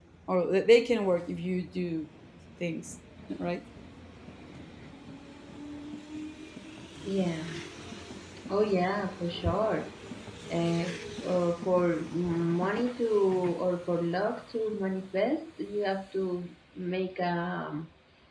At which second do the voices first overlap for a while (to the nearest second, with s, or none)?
none